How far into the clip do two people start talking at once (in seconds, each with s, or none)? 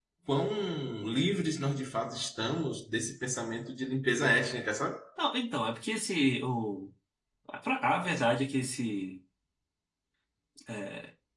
none